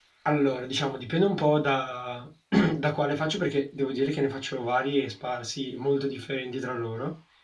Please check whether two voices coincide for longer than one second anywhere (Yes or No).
No